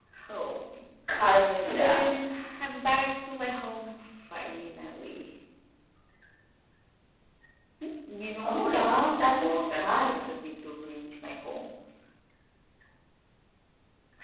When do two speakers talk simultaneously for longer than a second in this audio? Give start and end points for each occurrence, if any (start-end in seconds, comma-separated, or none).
8.4-10.3